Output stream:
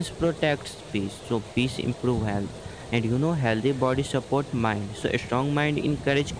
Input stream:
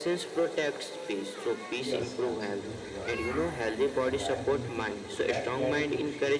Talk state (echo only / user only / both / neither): both